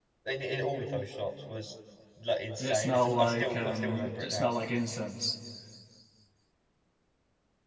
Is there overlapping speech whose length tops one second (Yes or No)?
Yes